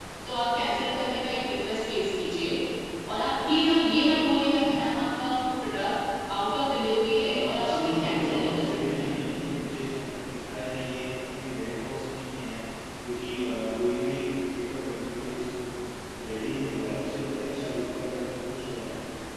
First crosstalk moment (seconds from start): 7.1 s

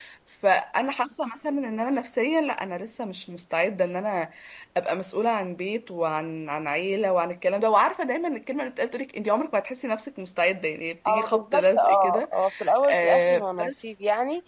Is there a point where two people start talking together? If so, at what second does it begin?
11.1 s

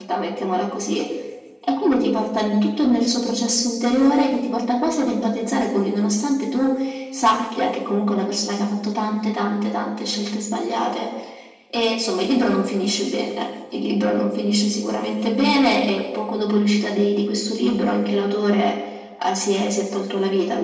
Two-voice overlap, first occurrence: none

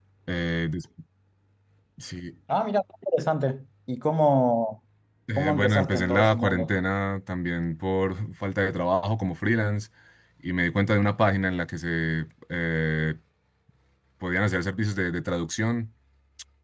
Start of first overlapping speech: 5.4 s

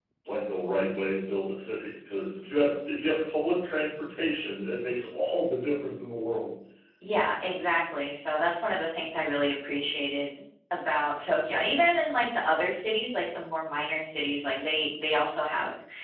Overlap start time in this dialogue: none

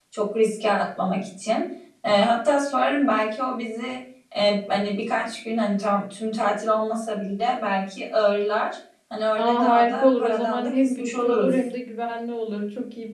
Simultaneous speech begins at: 9.4 s

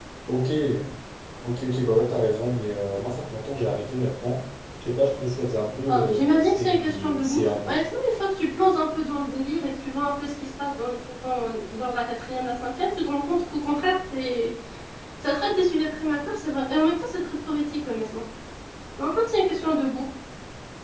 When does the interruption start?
5.9 s

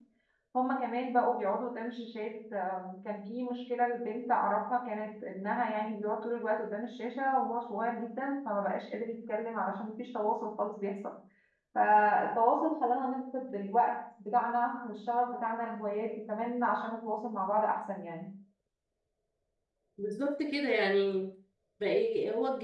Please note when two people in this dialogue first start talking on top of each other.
none

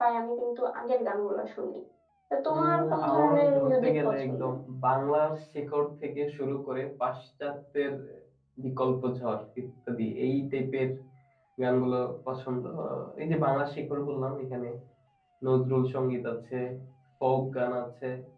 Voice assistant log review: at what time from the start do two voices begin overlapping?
2.5 s

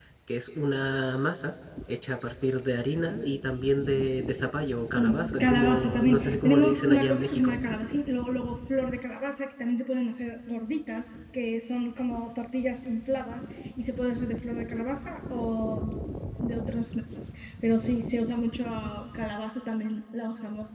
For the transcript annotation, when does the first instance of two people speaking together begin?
5.0 s

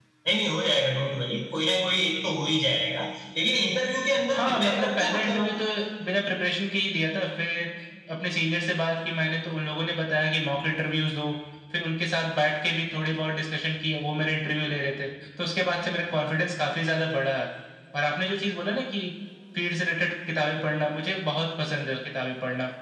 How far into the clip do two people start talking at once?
4.3 s

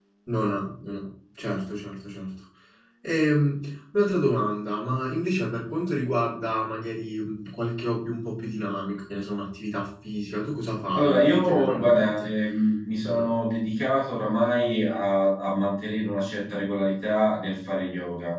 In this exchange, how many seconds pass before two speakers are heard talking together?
10.9 s

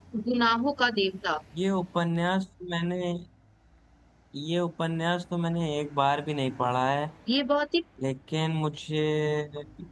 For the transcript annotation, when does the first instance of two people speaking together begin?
none

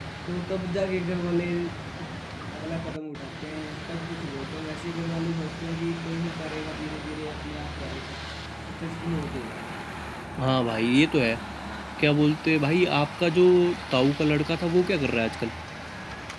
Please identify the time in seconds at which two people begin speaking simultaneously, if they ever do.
none

